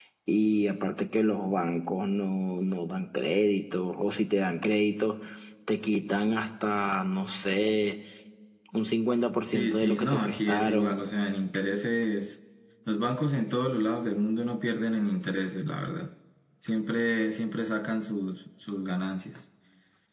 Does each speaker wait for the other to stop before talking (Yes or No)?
No